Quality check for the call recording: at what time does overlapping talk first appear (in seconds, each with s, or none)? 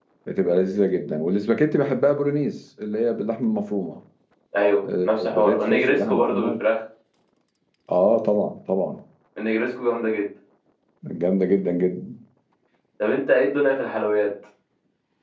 5.0 s